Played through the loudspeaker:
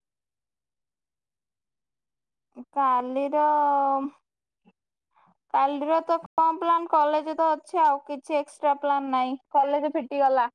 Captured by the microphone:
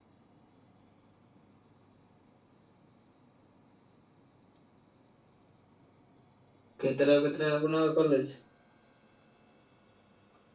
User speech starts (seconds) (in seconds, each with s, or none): 6.8 s